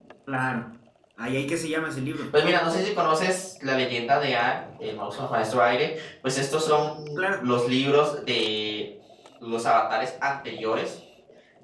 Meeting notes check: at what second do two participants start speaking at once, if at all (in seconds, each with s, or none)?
none